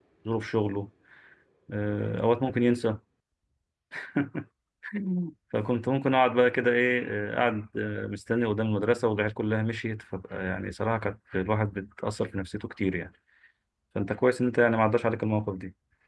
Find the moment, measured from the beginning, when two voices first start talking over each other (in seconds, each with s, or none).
none